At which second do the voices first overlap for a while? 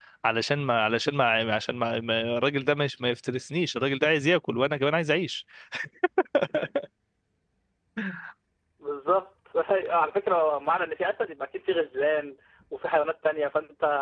none

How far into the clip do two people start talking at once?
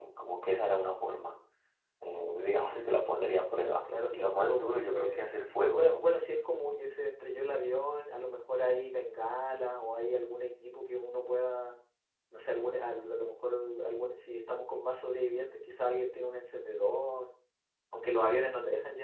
4.1 s

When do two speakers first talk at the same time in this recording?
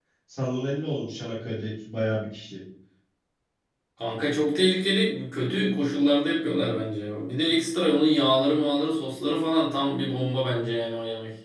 none

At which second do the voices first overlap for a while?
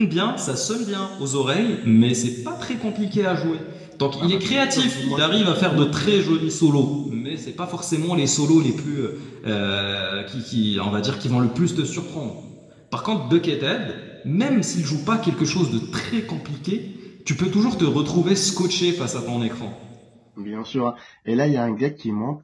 4.2 s

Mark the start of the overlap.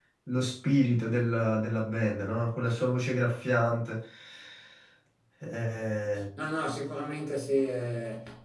none

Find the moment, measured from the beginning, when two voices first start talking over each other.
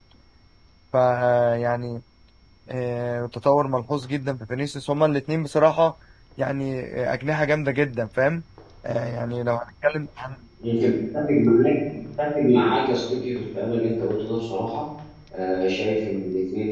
none

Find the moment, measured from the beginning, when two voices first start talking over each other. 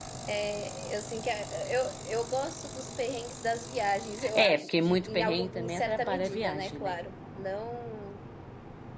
4.2 s

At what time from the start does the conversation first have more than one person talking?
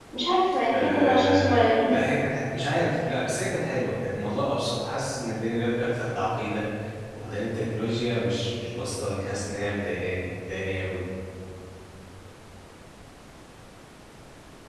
0.7 s

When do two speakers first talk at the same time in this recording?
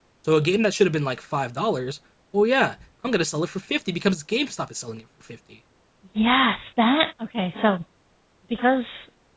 none

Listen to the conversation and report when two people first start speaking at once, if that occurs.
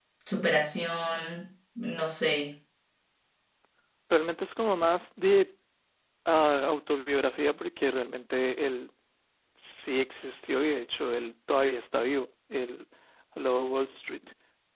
none

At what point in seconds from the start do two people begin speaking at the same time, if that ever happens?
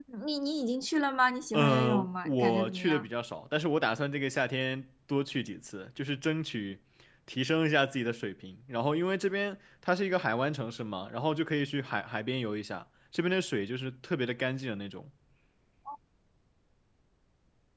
1.5 s

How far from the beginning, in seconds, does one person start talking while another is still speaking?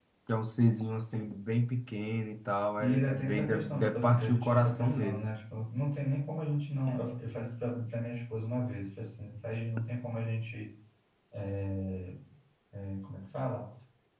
2.8 s

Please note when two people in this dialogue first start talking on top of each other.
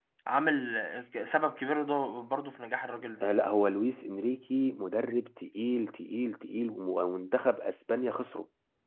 none

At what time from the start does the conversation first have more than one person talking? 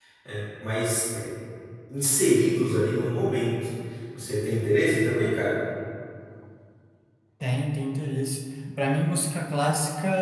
none

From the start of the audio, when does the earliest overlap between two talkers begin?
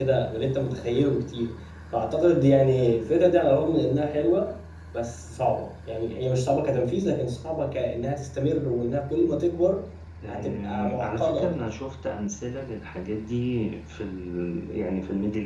10.2 s

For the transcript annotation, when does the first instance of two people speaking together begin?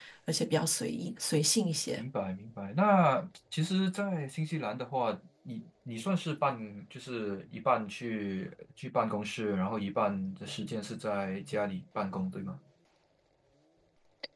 none

